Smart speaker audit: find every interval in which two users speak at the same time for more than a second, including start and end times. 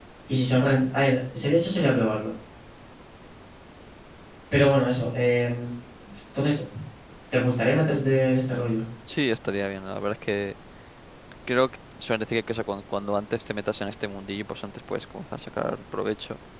none

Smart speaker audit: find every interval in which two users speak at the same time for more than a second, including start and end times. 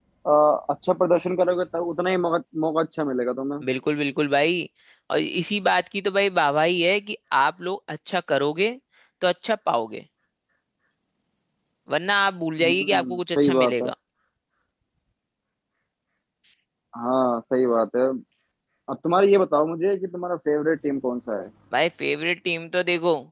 12.6-13.9

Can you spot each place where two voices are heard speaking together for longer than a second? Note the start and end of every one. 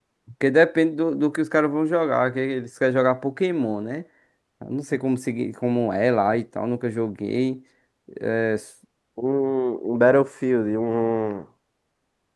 none

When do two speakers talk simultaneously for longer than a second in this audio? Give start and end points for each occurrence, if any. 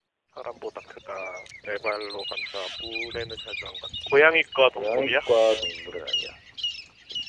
none

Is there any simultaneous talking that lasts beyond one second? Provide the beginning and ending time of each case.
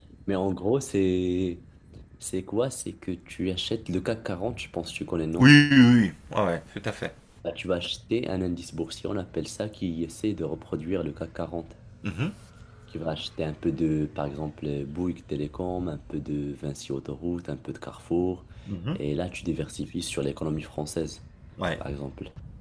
none

